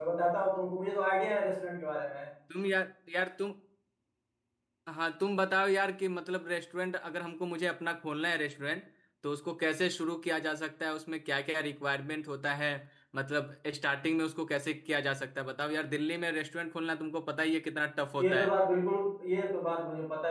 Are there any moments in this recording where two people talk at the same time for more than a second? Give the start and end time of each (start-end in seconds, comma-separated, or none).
none